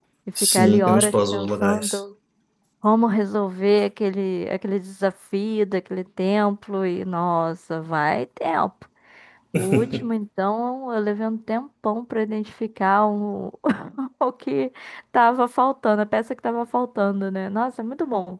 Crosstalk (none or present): present